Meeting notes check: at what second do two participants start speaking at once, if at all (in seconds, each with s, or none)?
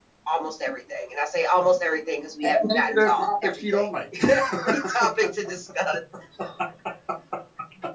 2.4 s